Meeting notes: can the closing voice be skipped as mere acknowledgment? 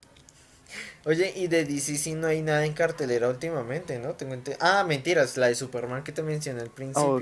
No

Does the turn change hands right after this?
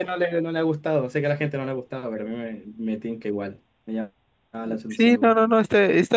Yes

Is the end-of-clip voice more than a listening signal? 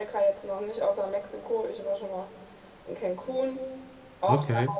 No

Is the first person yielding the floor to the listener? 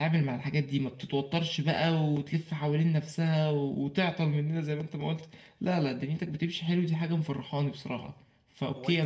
Yes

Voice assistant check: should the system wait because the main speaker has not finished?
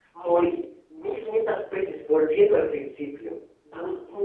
Yes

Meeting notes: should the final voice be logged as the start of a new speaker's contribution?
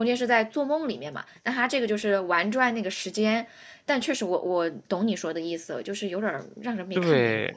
Yes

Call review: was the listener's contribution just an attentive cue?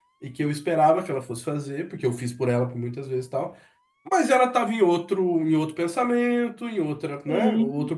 Yes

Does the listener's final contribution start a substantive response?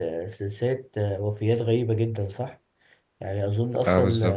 No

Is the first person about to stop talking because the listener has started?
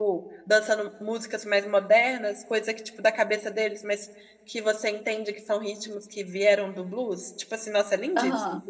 Yes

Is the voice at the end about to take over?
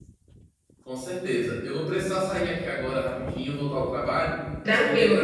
No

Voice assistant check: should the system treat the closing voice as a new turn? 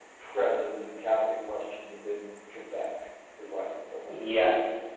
Yes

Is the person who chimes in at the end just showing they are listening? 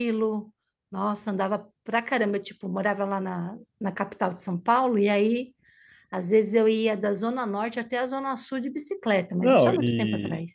No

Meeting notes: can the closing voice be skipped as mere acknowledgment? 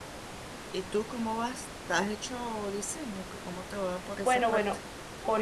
No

